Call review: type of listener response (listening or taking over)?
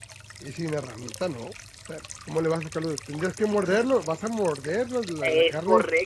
taking over